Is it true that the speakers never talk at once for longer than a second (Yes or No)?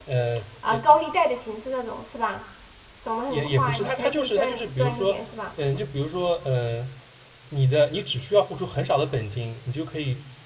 No